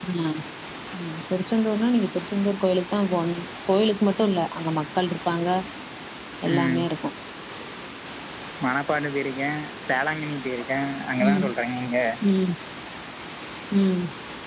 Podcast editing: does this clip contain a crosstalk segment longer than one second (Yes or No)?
No